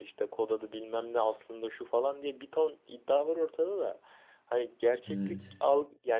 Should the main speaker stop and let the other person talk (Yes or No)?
No